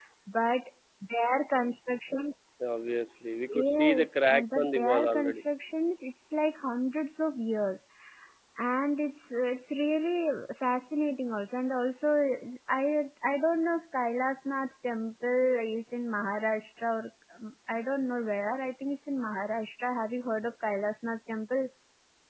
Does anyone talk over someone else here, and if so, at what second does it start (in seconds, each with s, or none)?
3.5 s